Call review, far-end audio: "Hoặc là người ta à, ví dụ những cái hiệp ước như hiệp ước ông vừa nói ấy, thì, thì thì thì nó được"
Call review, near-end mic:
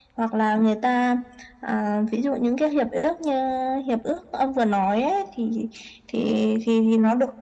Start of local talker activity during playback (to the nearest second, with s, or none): none